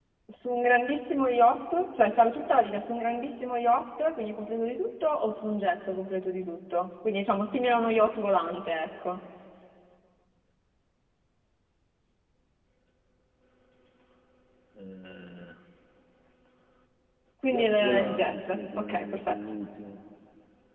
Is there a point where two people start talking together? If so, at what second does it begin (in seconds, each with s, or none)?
17.5 s